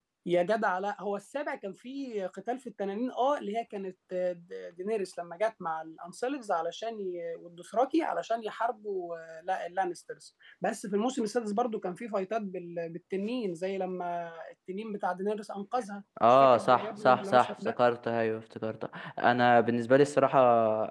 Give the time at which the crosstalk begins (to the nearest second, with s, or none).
16 s